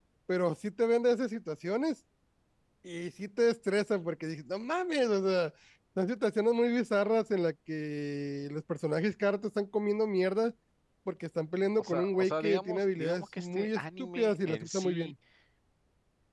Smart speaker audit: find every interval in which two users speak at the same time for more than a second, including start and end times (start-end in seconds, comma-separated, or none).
11.8-15.1